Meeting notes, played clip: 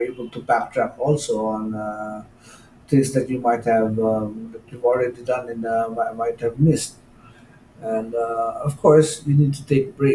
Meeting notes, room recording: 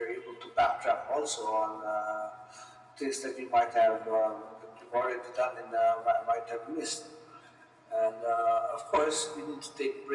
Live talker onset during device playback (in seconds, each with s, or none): none